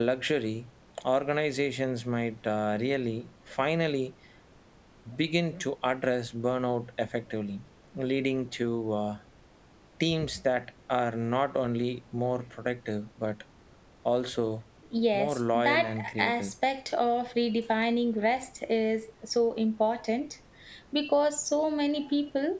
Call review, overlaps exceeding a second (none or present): present